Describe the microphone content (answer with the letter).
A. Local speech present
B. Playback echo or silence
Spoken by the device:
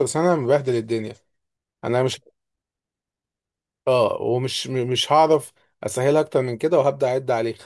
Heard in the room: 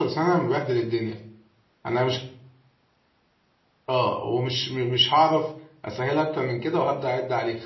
B